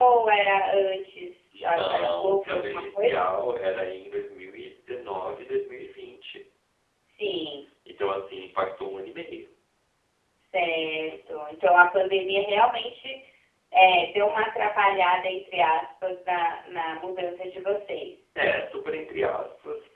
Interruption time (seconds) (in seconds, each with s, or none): 1.6 s